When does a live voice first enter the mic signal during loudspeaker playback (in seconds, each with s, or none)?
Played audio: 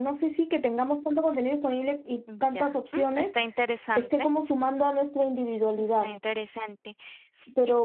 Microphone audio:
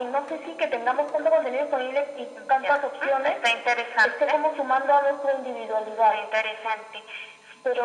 none